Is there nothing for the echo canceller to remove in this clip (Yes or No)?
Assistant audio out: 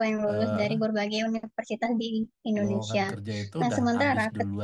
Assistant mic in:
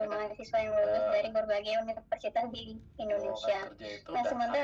No